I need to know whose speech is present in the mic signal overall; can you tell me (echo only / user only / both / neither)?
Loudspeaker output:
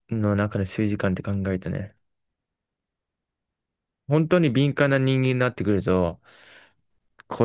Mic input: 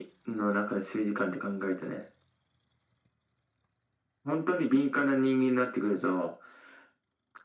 echo only